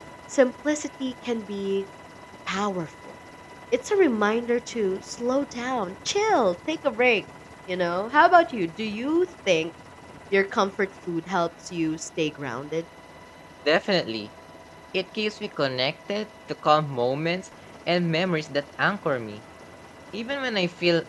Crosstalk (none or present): none